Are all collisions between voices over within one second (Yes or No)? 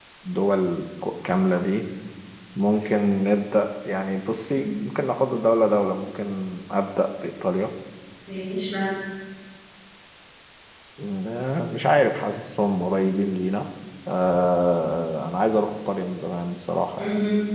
Yes